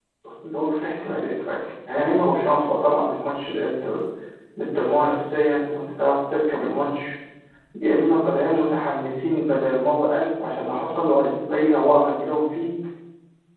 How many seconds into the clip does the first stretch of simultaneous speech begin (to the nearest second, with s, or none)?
none